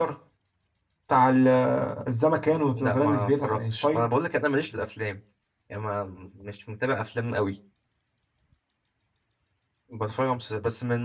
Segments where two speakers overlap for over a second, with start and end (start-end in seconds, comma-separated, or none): 2.7-4.1